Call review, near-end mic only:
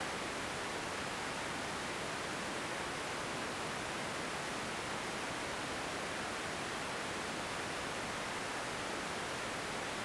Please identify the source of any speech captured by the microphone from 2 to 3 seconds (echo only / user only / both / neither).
neither